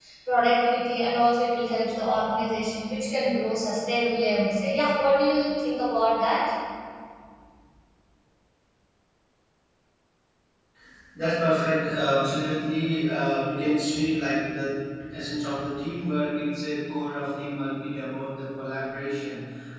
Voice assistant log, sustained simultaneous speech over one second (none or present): none